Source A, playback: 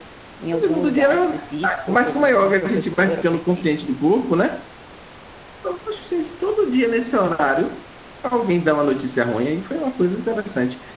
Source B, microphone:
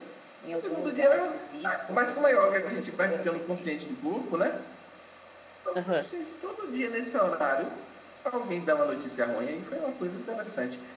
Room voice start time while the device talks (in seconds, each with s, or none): 5.7 s